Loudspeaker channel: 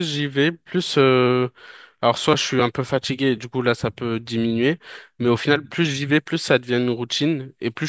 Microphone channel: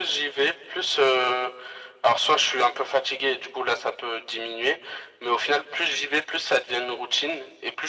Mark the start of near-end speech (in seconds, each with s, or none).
none